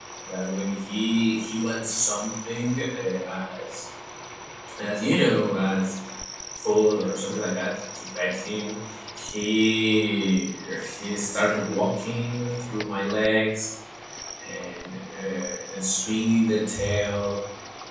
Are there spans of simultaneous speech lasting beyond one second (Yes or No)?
No